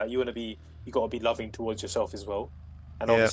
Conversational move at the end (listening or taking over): listening